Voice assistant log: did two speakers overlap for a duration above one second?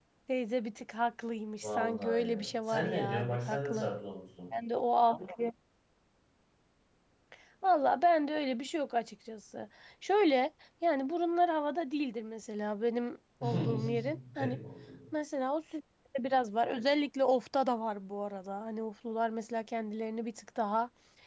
Yes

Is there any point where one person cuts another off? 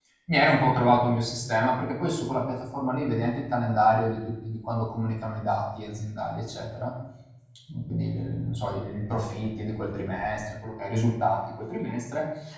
No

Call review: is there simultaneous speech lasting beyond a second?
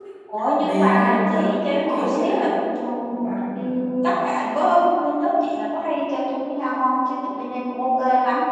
Yes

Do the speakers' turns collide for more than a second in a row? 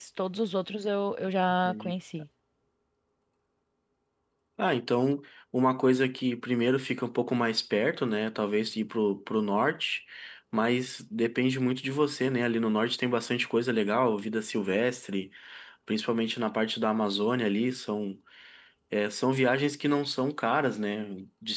No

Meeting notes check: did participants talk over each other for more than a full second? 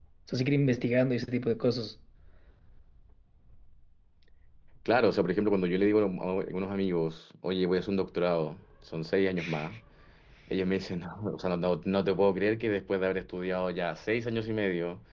No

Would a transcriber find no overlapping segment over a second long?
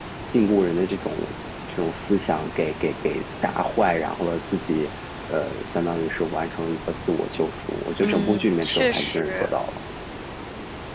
No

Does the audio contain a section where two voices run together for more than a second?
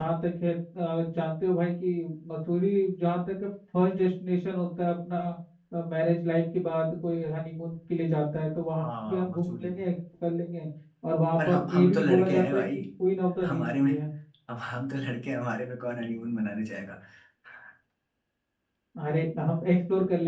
Yes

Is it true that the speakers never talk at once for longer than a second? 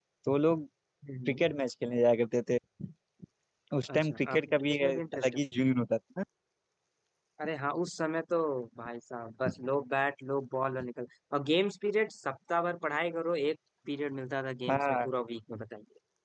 No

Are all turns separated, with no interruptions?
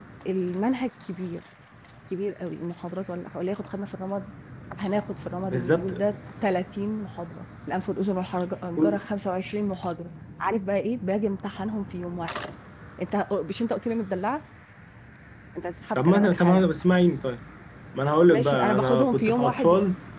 No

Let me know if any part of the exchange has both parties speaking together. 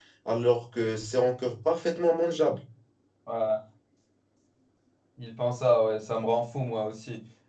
No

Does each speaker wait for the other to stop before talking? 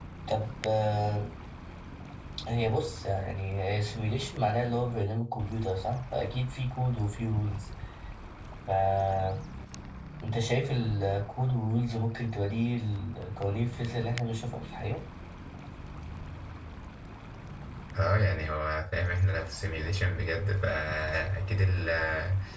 Yes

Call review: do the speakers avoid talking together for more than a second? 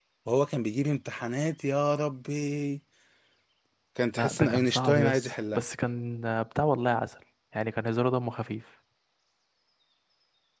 No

